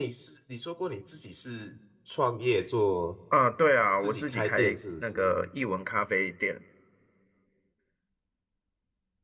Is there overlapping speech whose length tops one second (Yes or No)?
Yes